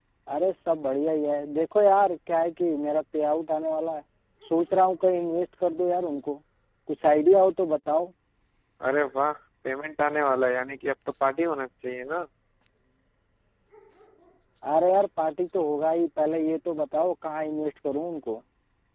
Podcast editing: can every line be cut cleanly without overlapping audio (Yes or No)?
Yes